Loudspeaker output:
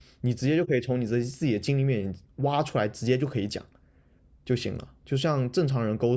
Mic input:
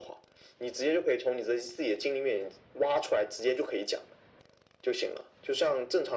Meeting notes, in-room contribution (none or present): none